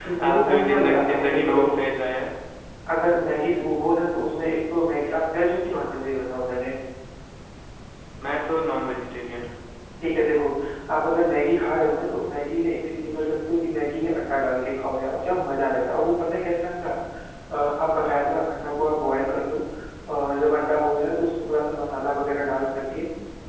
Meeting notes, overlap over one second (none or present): present